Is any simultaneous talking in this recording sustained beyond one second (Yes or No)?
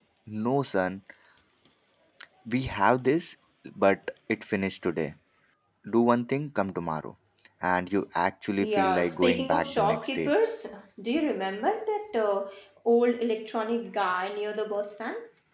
Yes